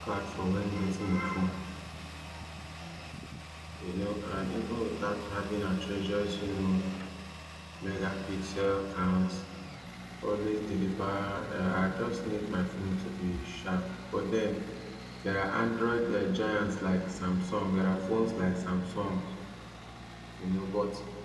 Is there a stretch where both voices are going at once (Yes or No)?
No